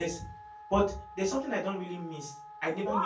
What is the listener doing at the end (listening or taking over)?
taking over